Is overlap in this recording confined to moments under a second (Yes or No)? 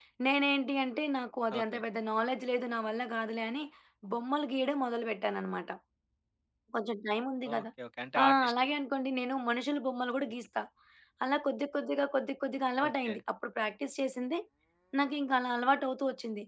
Yes